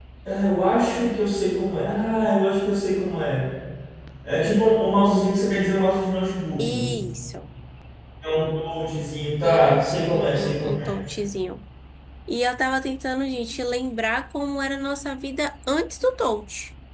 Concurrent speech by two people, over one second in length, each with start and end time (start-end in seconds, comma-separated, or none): 9.4-10.9